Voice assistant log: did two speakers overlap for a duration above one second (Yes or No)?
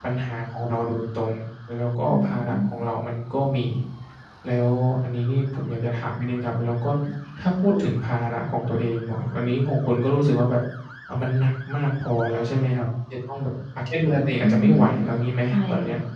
No